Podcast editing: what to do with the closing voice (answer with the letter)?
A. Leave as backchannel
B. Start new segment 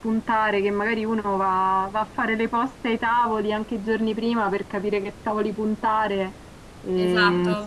B